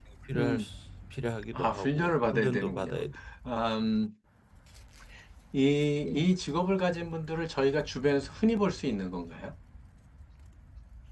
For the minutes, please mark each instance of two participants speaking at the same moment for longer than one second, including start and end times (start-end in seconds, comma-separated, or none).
1.6-2.9